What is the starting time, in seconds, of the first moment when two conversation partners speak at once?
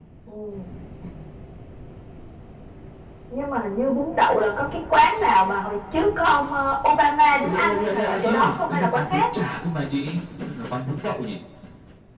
7.4 s

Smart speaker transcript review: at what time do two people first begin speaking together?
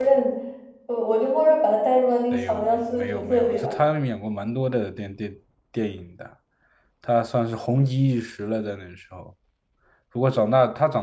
2.3 s

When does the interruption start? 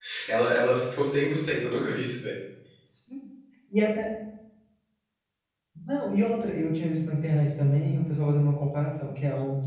none

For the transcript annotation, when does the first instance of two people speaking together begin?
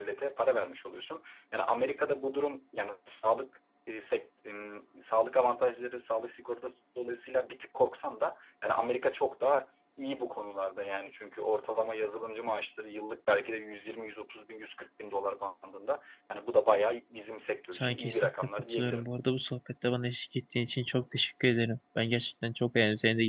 17.7 s

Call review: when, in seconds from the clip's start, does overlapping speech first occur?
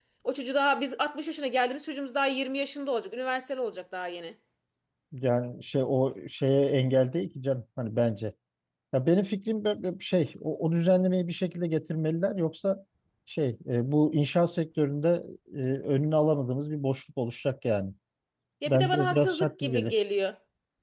18.7 s

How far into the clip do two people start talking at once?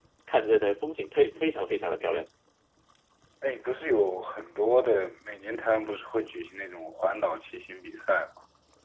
none

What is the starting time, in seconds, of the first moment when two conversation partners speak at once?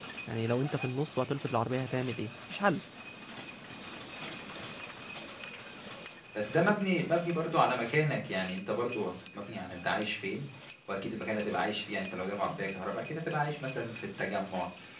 none

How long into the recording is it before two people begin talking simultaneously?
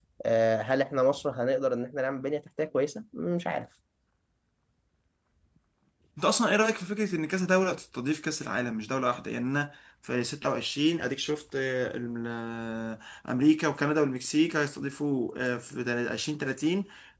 none

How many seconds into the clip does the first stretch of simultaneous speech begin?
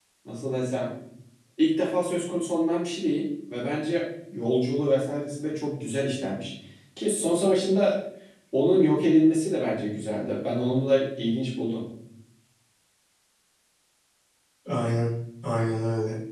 none

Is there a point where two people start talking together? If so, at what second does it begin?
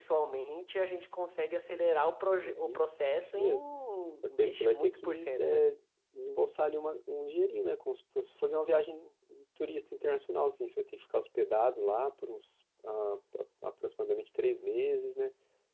2.4 s

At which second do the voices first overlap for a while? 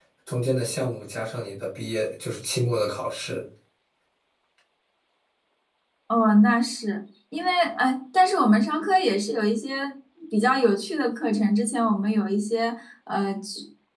none

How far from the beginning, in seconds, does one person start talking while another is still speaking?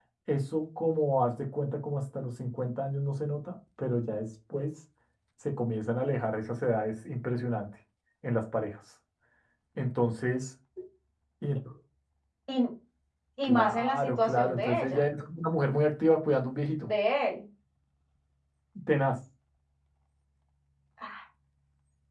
13.4 s

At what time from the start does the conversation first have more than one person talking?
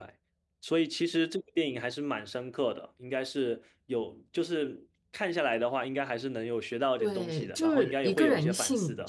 7.0 s

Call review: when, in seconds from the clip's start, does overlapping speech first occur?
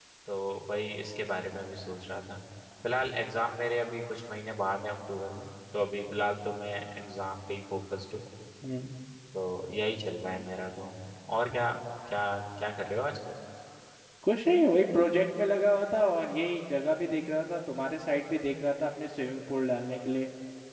none

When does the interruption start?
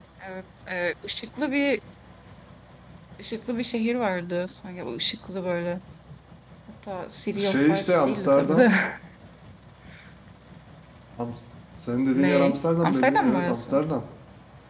7.4 s

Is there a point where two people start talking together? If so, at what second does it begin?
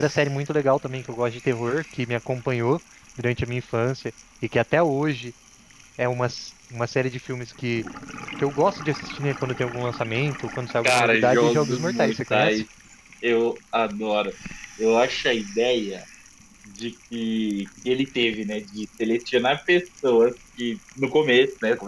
10.8 s

